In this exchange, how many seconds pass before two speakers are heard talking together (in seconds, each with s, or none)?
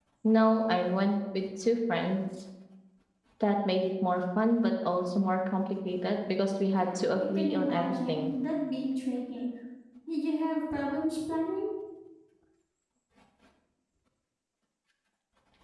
6.8 s